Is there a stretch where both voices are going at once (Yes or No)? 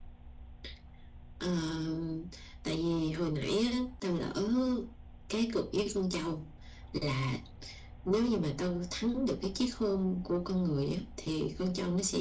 No